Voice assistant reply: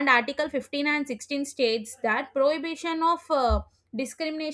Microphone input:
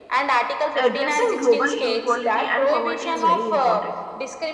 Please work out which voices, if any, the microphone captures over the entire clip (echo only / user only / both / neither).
both